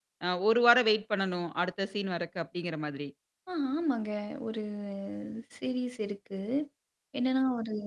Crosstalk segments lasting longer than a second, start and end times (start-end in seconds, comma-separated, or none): none